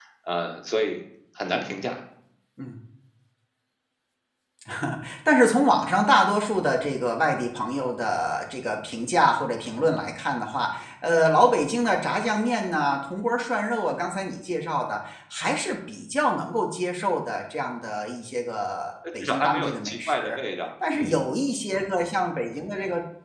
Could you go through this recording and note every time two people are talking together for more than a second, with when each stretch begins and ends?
19.2-20.4

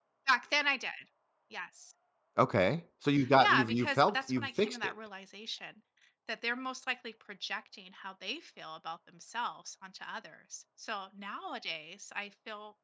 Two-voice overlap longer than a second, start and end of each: 3.4-4.9

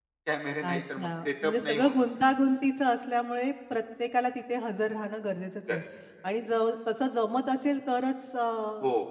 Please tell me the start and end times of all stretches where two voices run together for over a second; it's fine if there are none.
0.6-2.0

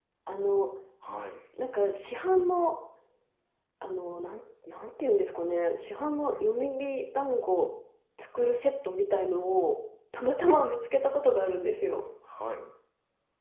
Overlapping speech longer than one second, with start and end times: none

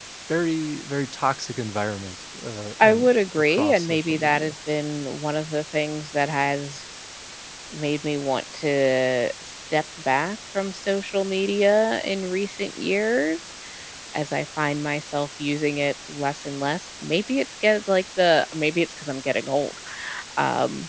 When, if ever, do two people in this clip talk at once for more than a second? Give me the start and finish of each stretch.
2.8-4.5

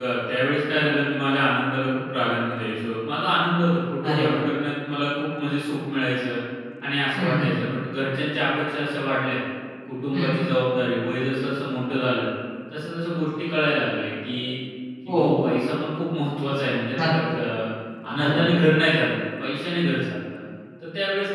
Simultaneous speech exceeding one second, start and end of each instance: none

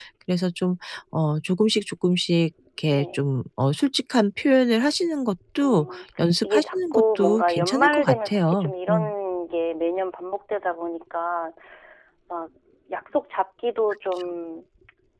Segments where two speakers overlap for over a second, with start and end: 6.4-9.1

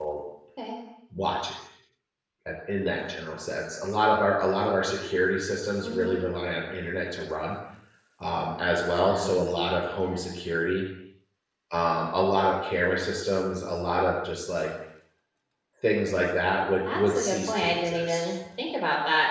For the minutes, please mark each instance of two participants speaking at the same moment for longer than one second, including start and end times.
16.9-18.3

